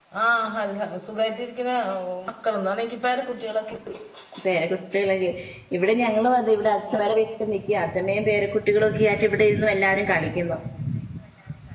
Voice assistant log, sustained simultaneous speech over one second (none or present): none